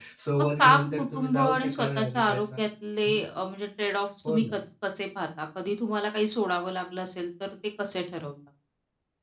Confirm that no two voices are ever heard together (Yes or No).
No